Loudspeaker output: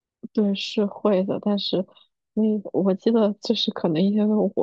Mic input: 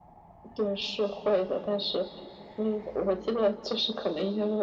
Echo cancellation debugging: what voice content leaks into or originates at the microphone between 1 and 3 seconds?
echo only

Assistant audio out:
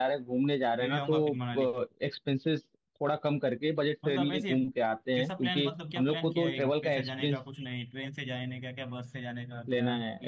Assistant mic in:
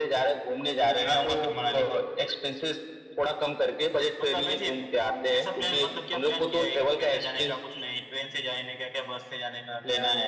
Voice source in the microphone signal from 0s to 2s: echo only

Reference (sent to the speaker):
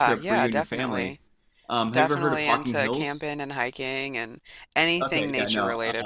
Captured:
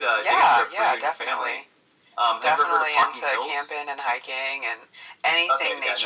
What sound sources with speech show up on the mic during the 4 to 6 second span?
echo only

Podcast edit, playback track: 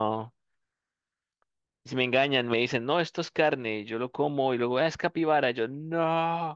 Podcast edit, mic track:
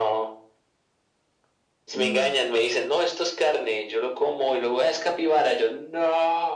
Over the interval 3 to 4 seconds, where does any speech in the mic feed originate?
echo only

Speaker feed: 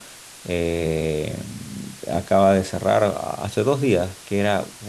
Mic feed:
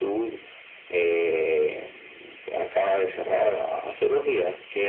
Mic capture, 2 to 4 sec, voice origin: echo only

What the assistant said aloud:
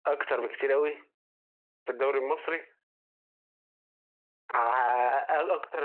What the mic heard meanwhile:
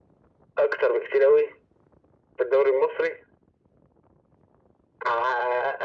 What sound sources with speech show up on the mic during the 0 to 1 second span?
echo only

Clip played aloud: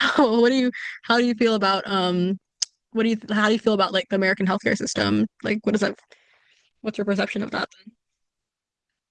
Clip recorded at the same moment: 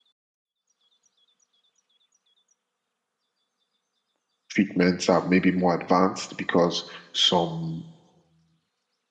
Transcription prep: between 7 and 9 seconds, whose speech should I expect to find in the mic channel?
user only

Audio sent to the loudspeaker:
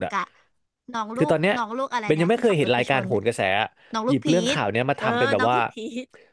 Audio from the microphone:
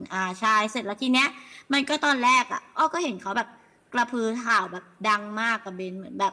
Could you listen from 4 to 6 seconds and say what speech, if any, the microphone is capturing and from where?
user only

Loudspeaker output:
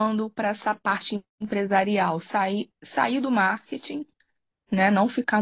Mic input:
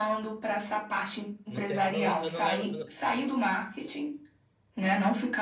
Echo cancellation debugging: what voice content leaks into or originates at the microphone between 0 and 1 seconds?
echo only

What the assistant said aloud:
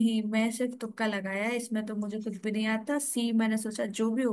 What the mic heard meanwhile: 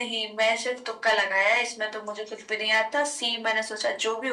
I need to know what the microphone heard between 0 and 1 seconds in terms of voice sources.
echo only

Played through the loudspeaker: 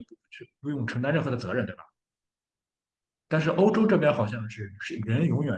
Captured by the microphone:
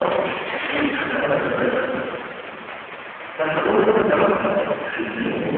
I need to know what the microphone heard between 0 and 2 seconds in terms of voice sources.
echo only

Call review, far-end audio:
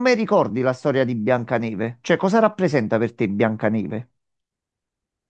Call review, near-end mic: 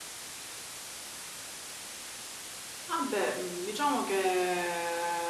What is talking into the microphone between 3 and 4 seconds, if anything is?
user only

